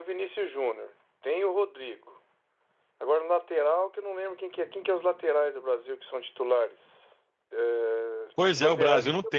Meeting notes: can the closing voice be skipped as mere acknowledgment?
No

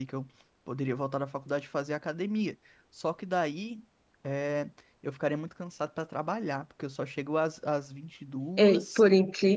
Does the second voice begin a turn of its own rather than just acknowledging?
Yes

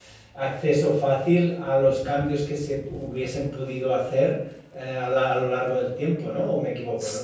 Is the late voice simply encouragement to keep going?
No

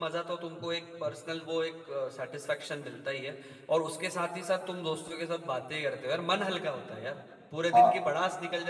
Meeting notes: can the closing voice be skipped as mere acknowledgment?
Yes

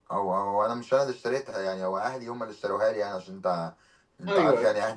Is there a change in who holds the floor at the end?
No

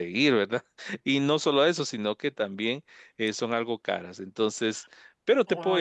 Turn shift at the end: Yes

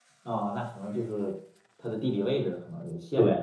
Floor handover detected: Yes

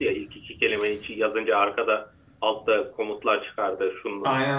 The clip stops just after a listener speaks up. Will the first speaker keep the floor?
Yes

